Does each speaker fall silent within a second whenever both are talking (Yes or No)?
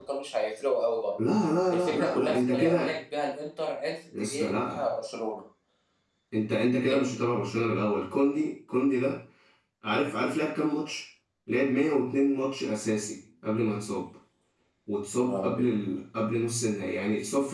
No